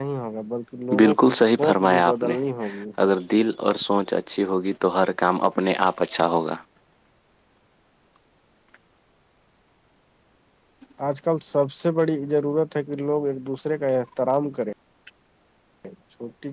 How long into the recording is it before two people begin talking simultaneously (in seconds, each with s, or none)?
1.0 s